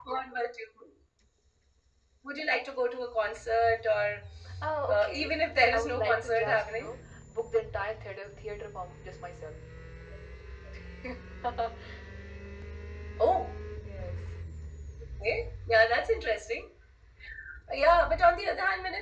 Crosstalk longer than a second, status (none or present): present